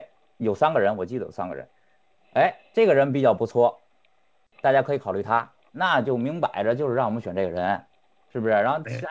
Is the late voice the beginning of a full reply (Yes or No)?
No